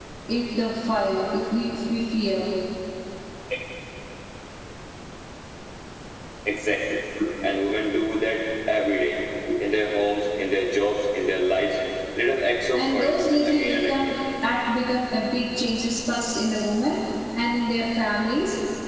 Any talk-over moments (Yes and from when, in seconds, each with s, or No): Yes, from 12.7 s